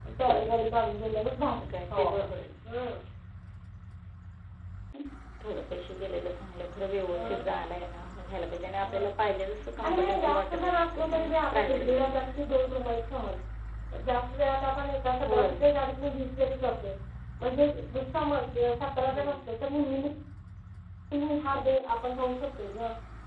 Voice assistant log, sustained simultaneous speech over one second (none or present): present